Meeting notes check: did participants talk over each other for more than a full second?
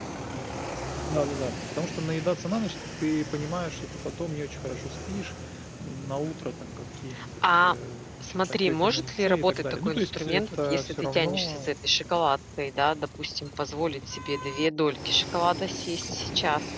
Yes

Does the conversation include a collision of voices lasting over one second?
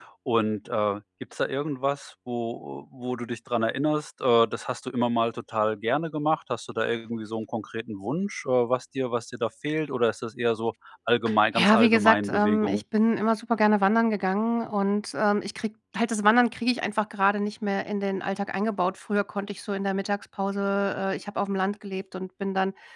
Yes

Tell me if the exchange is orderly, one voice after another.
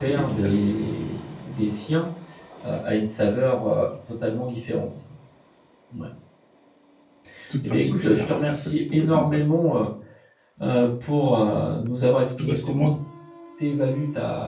No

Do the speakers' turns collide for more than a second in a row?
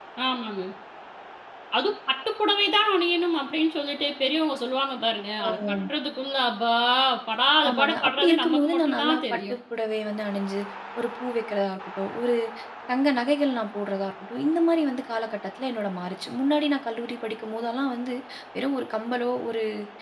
Yes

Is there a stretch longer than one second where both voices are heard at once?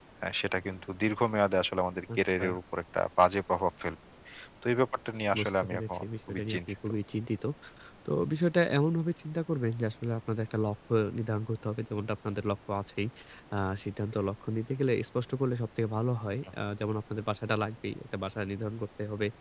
Yes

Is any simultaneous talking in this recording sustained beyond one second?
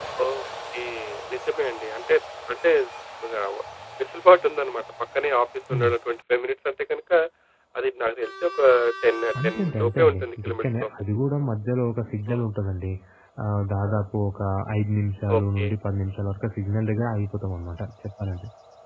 Yes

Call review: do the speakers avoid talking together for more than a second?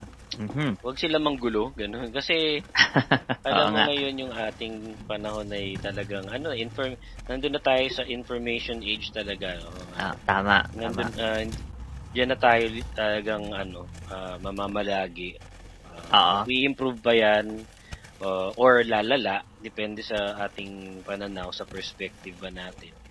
Yes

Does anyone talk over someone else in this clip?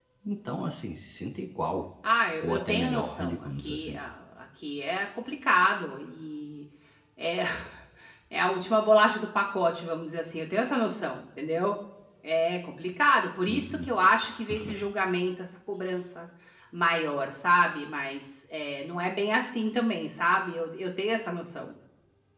Yes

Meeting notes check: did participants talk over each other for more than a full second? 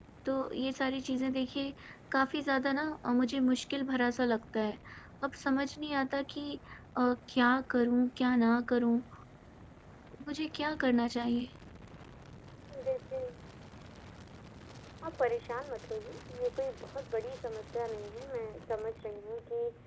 No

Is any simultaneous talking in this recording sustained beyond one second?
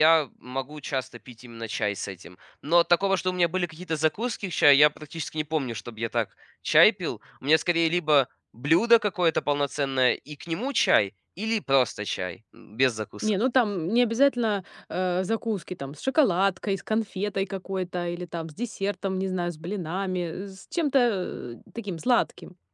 No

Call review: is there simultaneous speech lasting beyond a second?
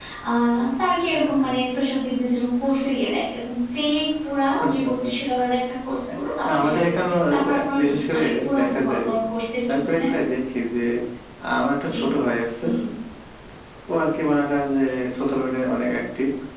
Yes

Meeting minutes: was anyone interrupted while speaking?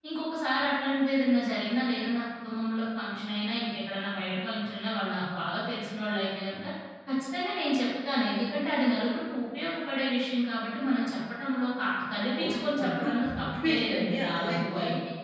Yes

